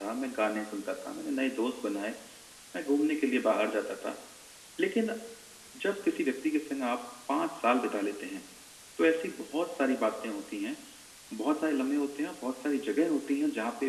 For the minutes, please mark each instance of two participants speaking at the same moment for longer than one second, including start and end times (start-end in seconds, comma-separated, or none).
none